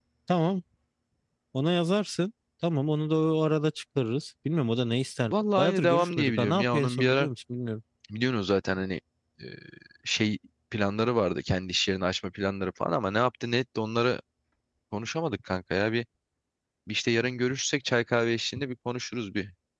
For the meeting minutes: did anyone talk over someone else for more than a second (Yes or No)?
Yes